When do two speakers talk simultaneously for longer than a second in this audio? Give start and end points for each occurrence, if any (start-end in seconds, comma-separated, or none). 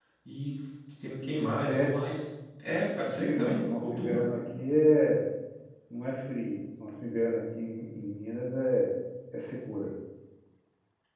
3.0-4.3